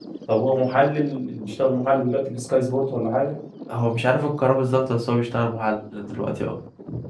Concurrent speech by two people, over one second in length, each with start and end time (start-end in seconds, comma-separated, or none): none